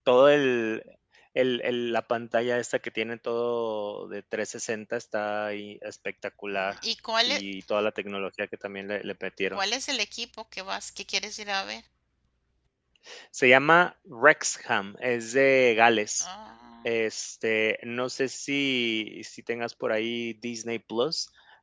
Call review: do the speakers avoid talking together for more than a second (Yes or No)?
Yes